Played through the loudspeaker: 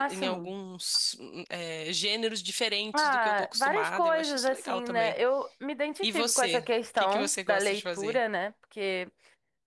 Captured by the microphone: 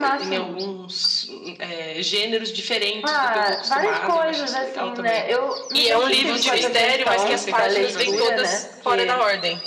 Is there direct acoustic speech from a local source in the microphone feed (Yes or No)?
Yes